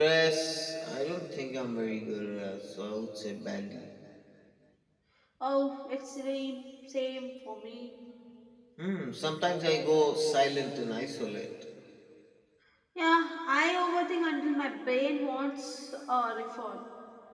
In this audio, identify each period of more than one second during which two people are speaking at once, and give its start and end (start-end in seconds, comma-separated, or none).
none